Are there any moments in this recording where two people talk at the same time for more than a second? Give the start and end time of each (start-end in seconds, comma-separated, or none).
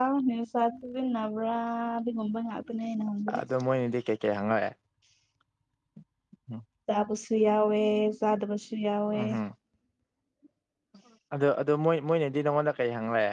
none